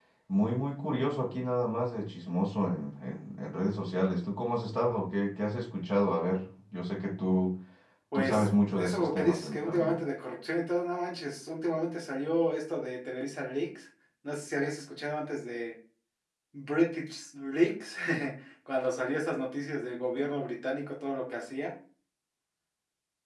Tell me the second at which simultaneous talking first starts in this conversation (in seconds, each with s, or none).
8.1 s